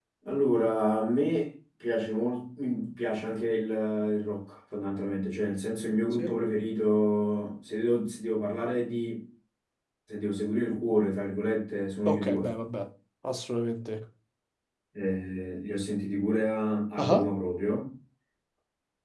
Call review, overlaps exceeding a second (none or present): none